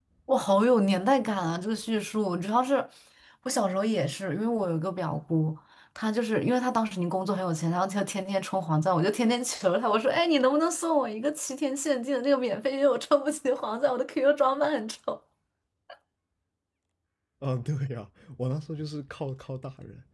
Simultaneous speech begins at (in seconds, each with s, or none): none